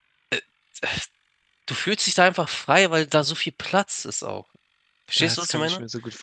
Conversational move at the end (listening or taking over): taking over